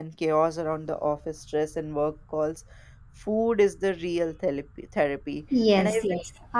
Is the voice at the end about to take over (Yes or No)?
Yes